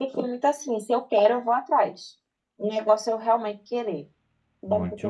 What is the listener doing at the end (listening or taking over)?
taking over